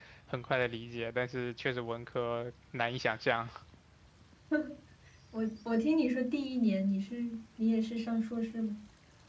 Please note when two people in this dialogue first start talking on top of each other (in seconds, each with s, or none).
none